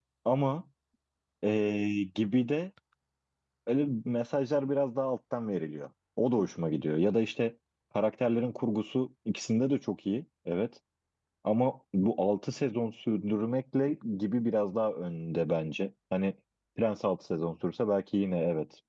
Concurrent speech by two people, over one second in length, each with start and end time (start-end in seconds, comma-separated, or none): none